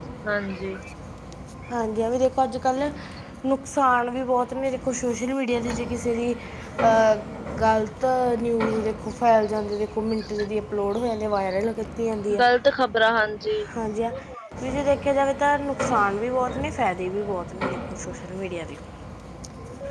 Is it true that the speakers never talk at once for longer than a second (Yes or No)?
Yes